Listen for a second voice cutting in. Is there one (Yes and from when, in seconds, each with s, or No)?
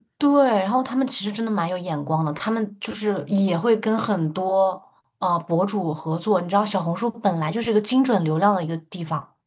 No